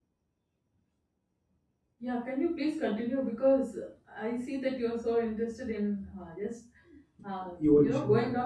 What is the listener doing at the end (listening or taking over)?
listening